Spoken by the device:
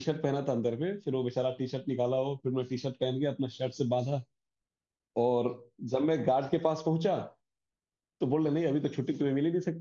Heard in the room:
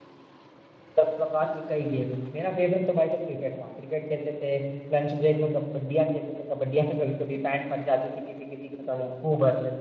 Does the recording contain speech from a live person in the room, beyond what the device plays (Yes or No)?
Yes